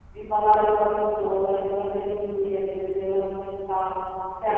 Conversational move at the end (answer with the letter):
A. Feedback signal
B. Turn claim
A